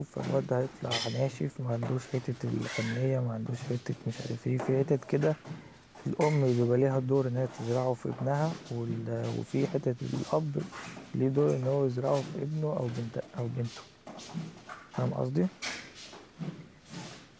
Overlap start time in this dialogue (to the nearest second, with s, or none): none